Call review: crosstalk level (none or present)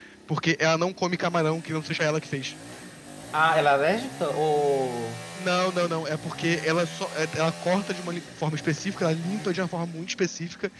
none